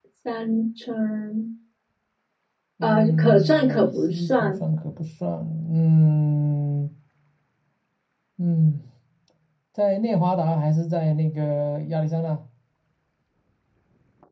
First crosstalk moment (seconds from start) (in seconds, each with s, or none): 2.8 s